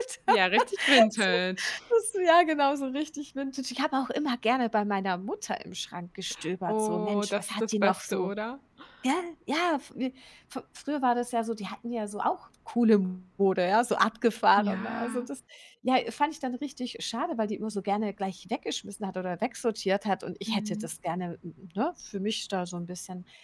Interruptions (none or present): present